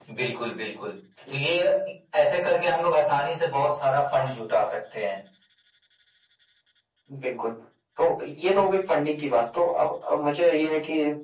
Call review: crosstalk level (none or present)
none